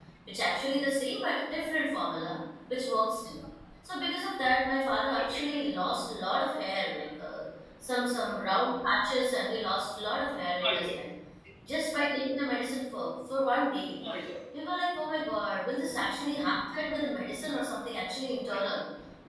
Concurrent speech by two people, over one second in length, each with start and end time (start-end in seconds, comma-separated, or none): none